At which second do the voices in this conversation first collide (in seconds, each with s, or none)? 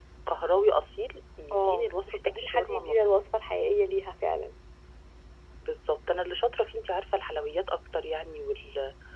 1.5 s